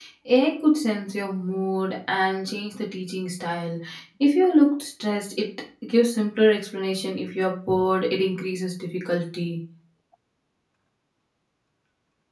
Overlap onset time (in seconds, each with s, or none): none